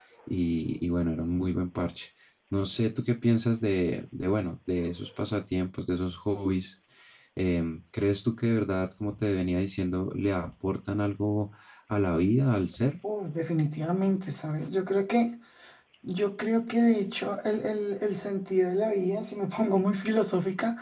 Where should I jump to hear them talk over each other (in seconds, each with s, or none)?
none